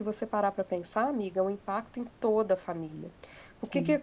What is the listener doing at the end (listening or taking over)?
listening